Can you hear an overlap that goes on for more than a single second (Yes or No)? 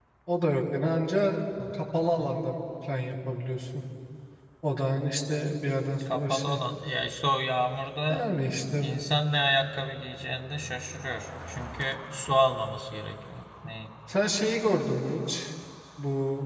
No